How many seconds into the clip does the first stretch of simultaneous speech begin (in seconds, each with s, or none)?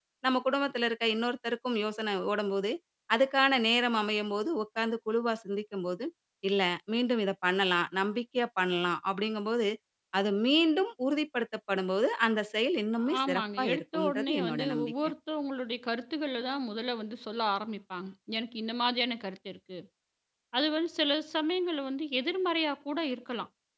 13.3 s